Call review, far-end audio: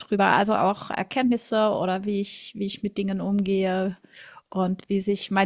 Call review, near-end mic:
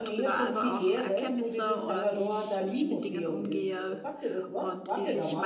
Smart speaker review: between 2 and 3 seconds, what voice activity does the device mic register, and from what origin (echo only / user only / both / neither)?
both